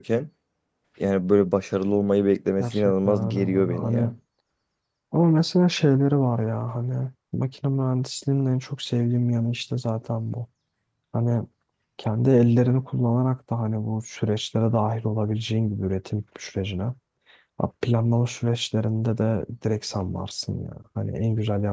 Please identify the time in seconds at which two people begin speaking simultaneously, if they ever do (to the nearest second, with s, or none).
3 s